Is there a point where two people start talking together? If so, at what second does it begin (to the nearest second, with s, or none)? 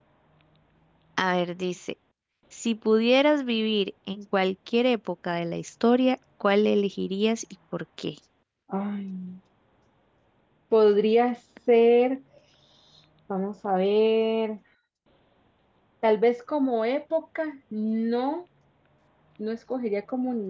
none